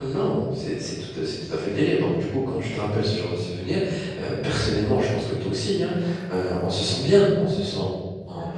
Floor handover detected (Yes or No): No